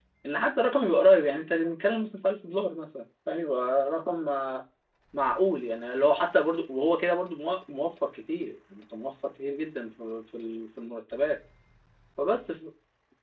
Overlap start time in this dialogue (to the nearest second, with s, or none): none